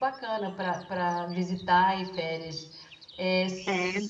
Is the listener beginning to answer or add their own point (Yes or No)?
No